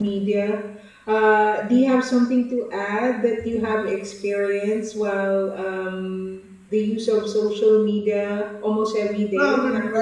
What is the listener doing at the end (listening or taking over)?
taking over